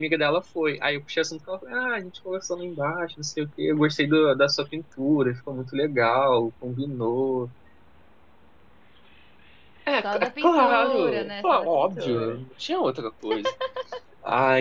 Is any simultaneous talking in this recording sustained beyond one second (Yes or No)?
Yes